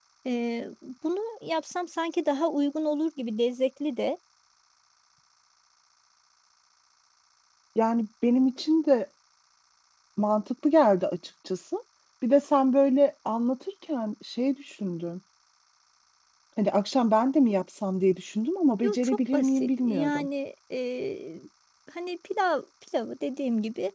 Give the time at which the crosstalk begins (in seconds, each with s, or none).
18.8 s